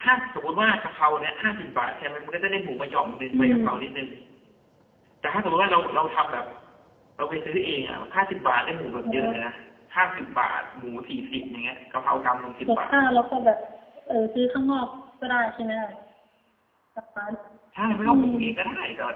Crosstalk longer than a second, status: none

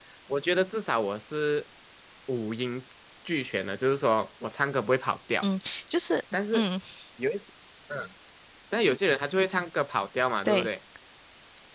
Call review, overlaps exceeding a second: none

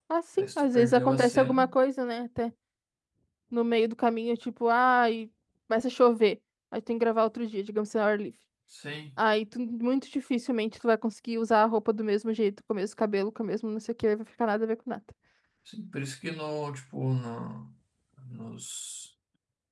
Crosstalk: present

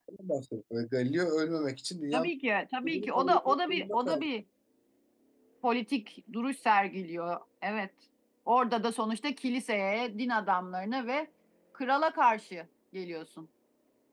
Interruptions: present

